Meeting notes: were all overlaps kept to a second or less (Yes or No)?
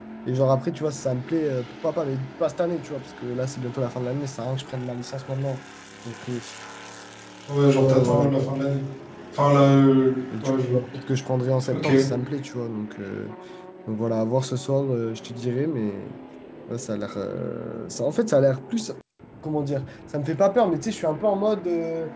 Yes